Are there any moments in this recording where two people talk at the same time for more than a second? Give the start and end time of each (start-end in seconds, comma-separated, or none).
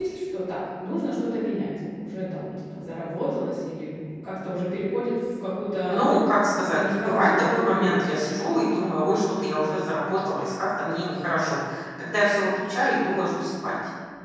6.7-8.0